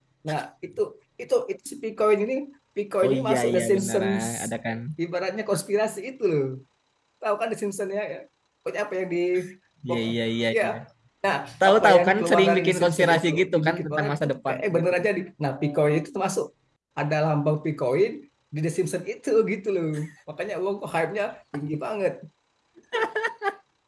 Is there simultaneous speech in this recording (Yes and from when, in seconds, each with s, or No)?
Yes, from 3.0 s